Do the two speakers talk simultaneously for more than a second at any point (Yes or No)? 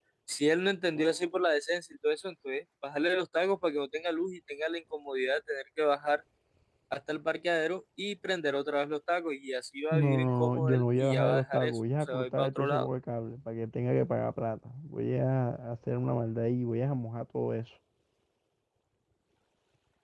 Yes